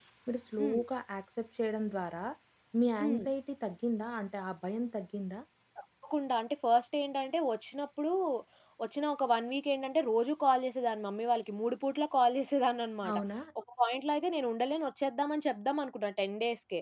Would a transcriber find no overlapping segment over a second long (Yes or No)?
Yes